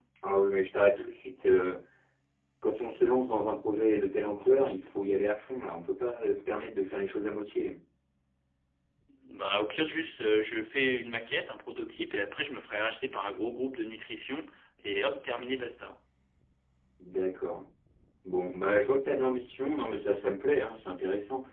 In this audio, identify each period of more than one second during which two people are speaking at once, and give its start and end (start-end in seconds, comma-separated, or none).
none